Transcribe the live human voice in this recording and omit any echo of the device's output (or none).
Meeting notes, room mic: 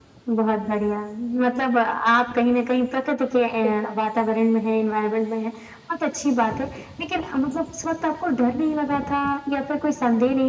ठीक है।